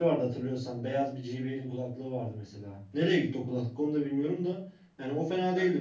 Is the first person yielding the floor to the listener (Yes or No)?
No